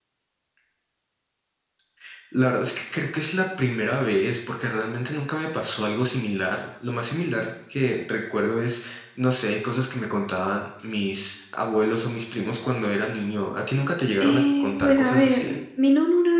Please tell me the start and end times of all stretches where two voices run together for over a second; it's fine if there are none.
14.2-15.6

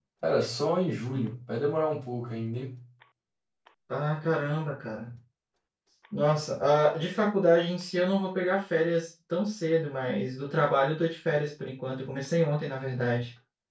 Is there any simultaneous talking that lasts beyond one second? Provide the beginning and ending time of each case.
none

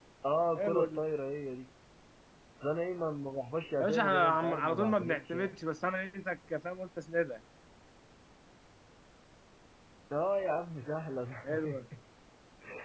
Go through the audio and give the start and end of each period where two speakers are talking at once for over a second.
3.8-5.5

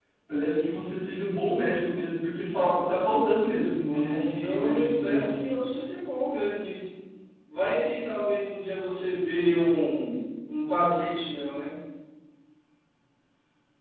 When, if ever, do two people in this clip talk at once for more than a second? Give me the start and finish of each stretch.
3.8-5.6

